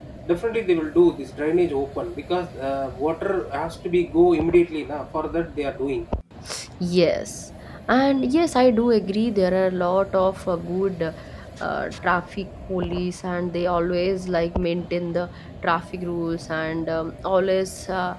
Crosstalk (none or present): none